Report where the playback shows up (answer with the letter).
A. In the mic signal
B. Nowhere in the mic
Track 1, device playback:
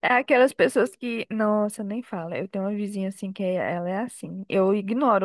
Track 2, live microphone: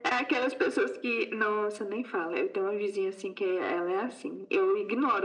A